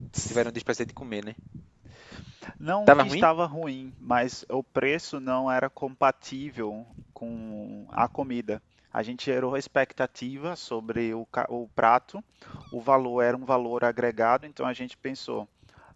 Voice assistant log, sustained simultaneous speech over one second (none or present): none